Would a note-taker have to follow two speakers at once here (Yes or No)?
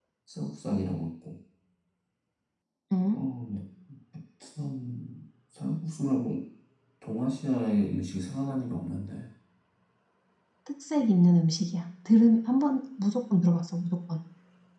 No